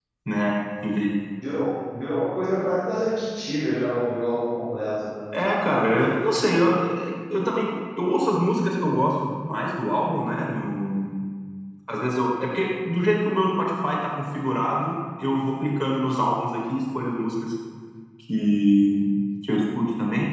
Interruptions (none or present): none